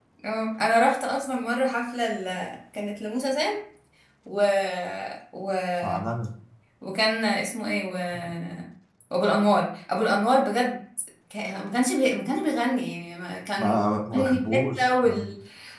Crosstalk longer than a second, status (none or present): present